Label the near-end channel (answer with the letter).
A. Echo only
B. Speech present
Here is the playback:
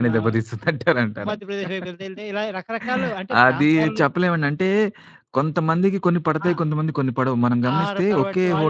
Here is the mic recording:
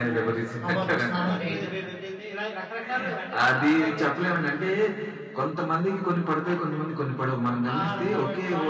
B